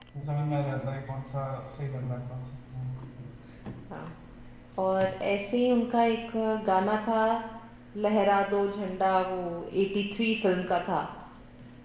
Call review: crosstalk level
none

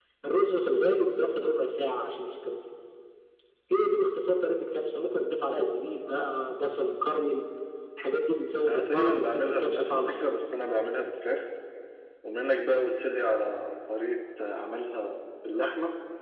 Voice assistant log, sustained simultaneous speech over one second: present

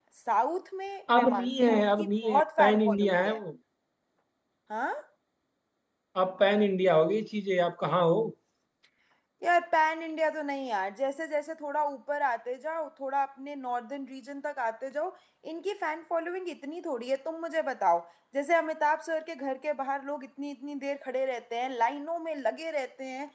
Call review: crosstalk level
present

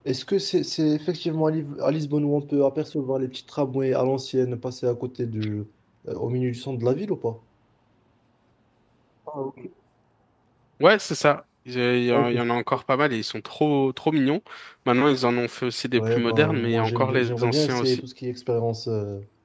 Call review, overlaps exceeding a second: present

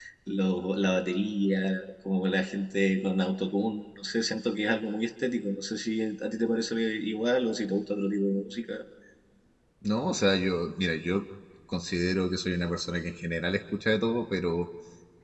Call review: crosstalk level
none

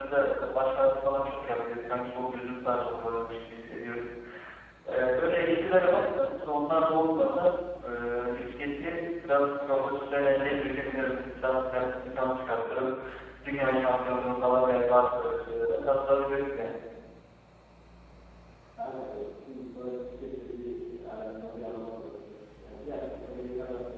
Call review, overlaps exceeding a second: none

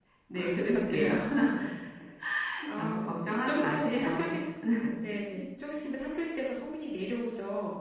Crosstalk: present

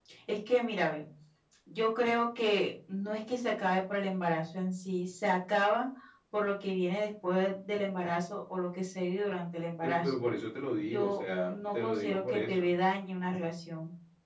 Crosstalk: present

